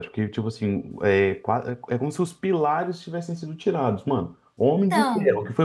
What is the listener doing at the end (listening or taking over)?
listening